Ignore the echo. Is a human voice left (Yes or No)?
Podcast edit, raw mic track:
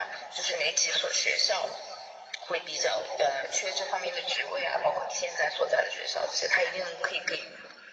No